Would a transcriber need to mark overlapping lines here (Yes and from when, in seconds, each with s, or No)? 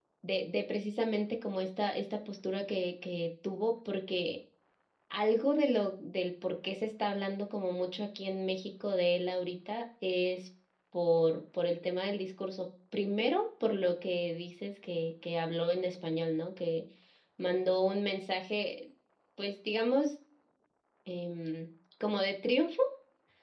No